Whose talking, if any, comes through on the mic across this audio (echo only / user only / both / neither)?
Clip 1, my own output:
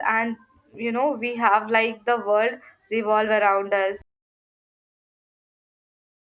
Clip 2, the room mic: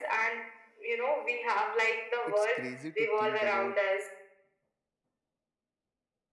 both